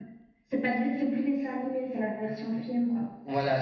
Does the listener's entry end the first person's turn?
Yes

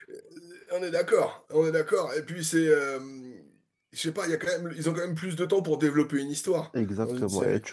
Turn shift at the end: Yes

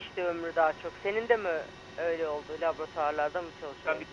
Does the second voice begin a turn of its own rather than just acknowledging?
Yes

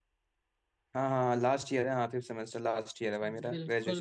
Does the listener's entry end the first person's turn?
Yes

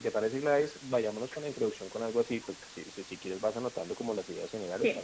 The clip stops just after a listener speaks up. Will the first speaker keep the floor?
No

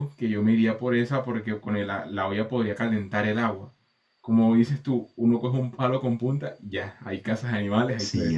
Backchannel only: No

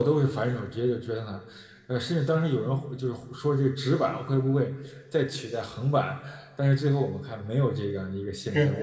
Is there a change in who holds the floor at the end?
Yes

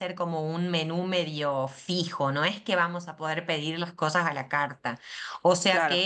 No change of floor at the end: Yes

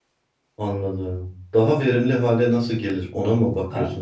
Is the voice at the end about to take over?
Yes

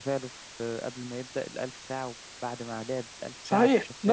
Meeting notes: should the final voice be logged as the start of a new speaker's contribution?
Yes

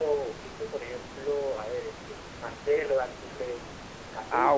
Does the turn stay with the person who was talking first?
No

